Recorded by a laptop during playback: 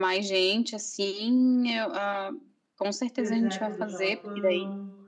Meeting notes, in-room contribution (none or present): present